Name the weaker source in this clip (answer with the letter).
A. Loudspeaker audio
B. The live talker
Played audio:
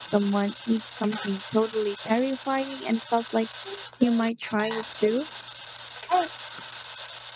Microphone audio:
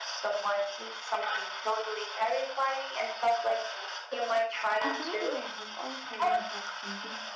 B